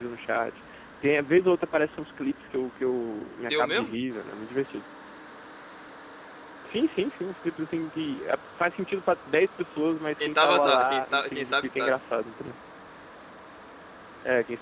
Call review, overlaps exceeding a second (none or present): present